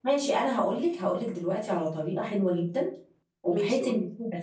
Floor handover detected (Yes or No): No